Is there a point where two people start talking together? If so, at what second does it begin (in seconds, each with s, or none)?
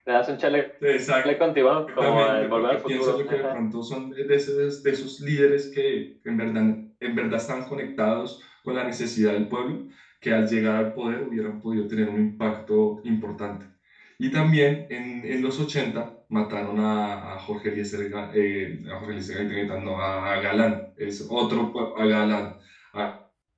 1.9 s